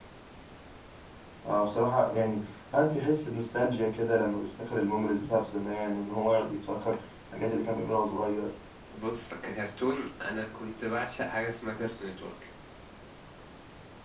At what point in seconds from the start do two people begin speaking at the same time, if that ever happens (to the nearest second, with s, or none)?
none